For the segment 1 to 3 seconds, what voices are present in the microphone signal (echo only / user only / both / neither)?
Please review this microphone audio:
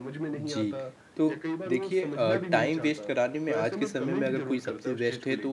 both